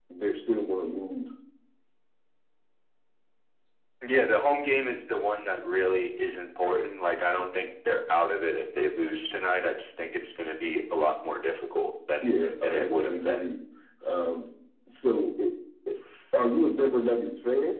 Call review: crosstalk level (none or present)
present